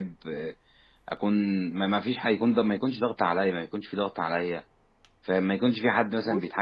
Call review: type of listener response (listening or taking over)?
listening